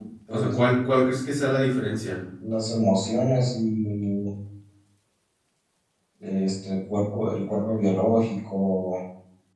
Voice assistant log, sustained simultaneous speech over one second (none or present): none